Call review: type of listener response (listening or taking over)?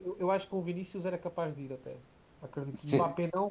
listening